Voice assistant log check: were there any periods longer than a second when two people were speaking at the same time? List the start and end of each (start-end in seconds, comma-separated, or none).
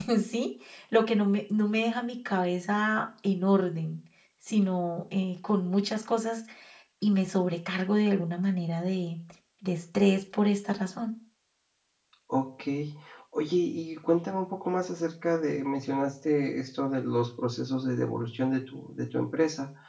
none